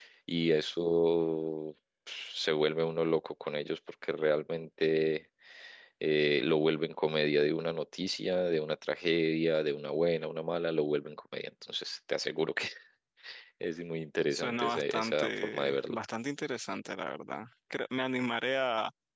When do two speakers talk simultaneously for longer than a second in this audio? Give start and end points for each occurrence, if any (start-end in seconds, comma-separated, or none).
14.3-16.0